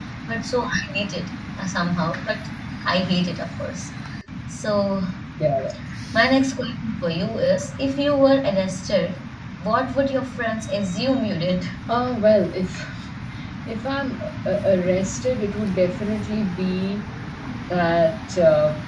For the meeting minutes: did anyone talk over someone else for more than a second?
No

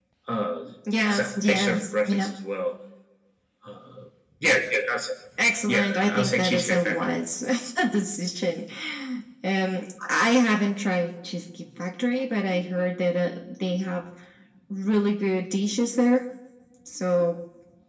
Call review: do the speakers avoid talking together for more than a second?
No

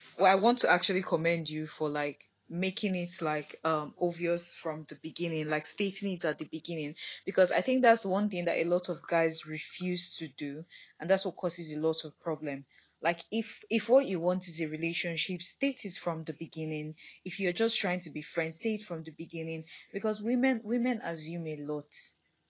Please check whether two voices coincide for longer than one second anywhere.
No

